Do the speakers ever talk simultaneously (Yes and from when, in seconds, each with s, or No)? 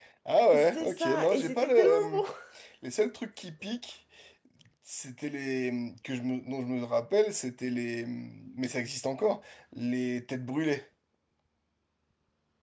Yes, from 0.6 s